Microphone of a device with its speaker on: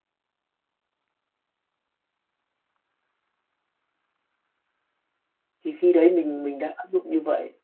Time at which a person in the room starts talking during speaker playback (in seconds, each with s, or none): 5.6 s